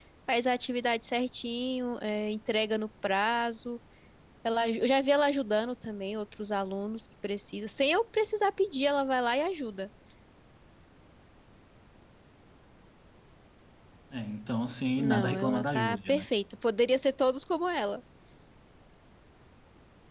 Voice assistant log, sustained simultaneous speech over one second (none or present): present